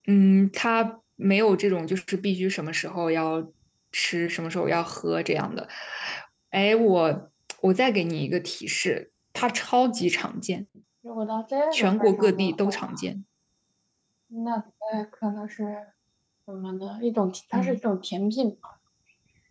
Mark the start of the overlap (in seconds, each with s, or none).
11.7 s